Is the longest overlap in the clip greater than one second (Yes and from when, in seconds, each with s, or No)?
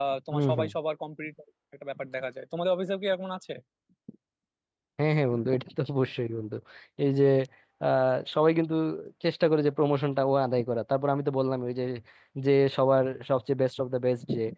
No